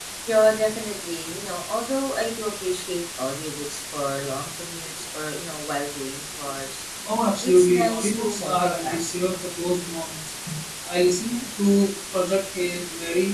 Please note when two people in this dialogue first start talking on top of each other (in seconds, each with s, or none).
7.4 s